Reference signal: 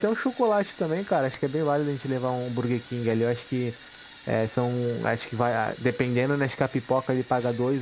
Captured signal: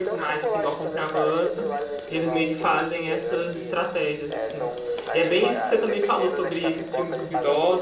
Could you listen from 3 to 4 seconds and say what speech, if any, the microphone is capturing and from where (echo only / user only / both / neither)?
both